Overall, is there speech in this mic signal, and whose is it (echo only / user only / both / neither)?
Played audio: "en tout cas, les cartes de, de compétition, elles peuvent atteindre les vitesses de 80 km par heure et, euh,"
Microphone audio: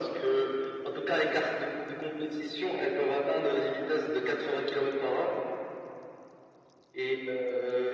echo only